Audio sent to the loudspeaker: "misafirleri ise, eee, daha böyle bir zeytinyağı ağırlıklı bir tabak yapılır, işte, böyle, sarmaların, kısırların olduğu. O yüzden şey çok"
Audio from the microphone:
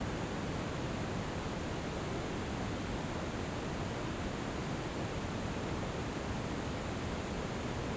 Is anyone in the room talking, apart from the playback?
No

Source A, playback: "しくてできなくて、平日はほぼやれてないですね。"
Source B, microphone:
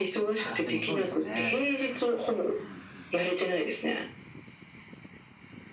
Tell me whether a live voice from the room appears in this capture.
Yes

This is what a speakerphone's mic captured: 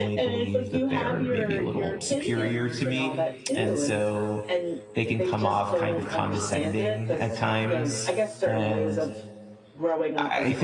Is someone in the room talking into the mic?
Yes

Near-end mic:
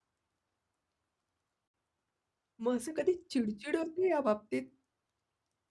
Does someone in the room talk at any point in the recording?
Yes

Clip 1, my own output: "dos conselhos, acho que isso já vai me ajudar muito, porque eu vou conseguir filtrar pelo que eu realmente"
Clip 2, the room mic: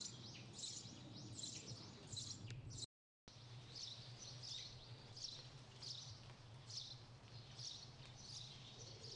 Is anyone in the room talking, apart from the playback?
No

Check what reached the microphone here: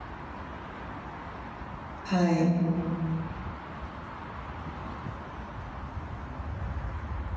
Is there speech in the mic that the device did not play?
Yes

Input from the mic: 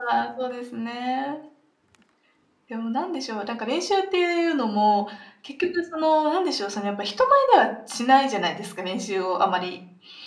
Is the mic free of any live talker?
Yes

